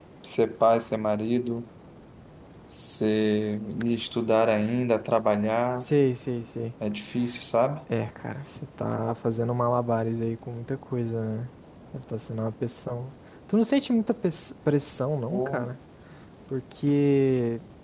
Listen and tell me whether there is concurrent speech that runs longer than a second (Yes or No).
No